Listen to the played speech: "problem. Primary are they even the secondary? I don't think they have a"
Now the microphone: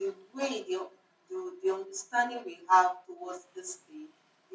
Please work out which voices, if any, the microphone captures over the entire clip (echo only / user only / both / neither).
user only